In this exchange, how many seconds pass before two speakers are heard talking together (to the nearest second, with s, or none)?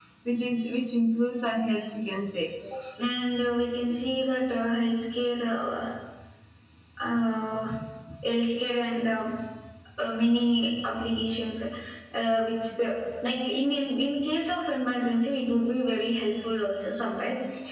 none